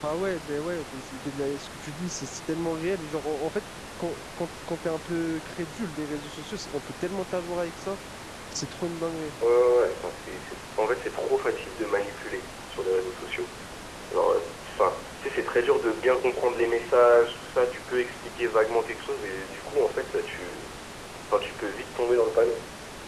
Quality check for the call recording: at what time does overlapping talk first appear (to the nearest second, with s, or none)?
none